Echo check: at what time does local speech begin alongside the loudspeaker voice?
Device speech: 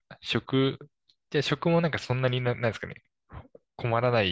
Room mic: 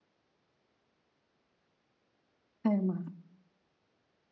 3 s

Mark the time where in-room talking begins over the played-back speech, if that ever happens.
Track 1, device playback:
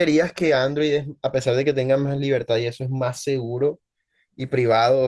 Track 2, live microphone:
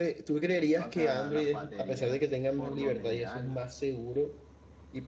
1 s

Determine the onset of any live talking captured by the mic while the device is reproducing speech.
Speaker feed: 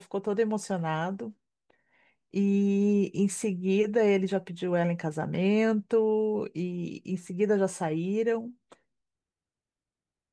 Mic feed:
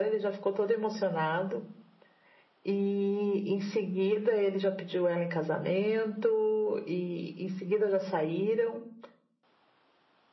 none

